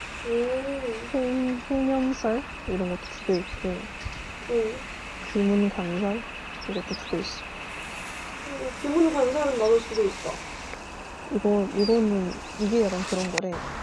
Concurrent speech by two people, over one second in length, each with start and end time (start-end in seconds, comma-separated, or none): none